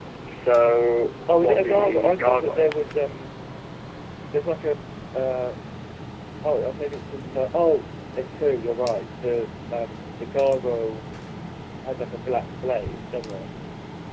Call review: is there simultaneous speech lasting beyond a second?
Yes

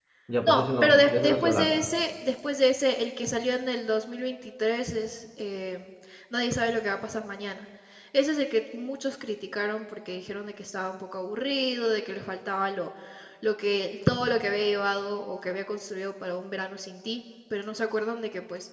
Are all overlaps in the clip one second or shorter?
No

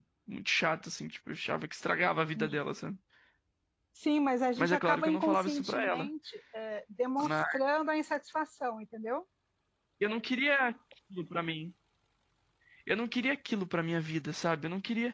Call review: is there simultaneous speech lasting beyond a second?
Yes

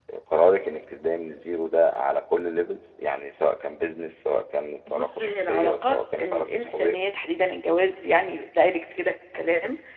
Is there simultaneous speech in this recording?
Yes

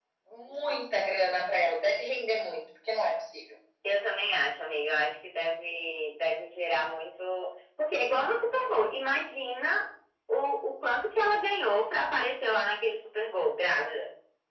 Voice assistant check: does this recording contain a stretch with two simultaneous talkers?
No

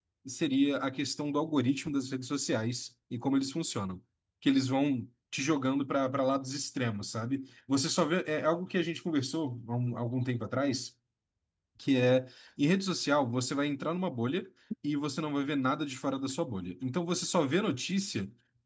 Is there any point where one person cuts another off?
No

